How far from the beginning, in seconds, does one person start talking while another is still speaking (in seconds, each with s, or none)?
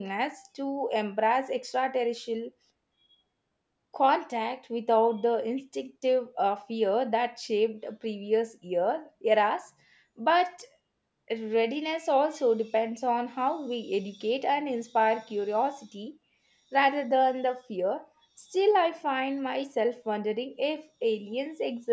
none